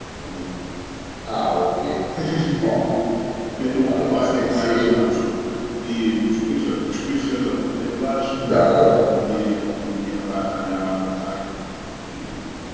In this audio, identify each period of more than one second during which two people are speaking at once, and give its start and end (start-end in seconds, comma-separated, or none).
3.7-5.0